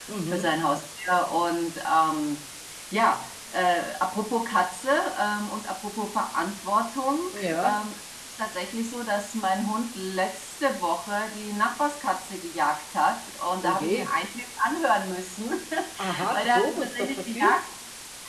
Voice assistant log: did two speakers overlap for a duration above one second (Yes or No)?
Yes